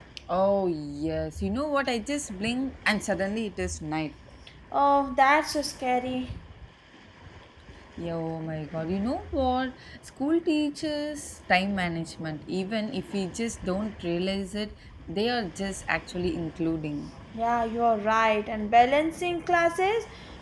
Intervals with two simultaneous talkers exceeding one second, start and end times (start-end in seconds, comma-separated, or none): none